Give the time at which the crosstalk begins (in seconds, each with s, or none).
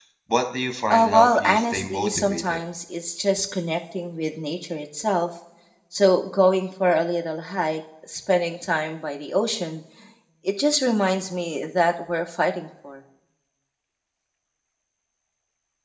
0.9 s